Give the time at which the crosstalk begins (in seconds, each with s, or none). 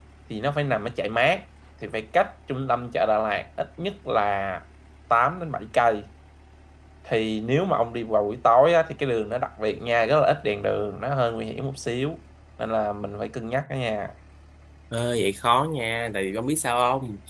none